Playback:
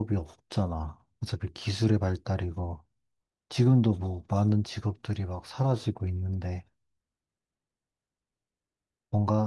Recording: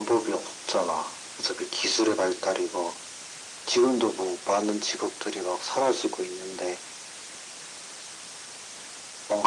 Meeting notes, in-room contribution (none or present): none